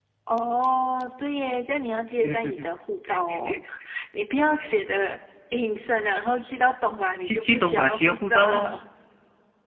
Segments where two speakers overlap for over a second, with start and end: 7.2-8.8

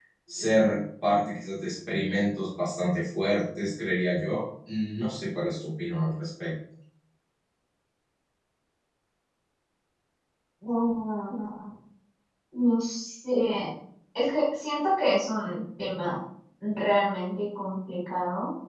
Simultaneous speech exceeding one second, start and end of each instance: none

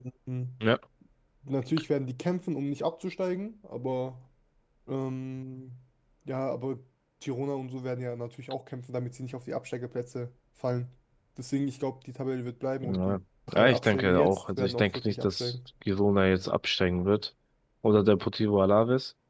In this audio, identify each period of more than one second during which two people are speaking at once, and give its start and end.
13.5-15.5

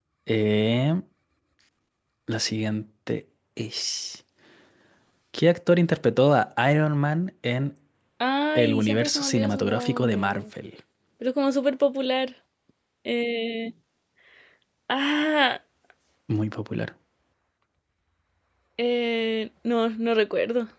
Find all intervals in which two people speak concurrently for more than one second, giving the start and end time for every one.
8.6-10.4

